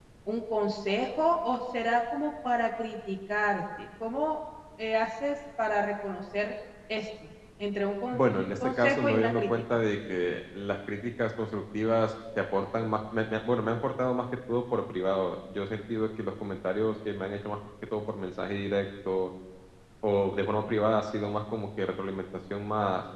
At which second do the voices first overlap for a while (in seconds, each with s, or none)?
8.1 s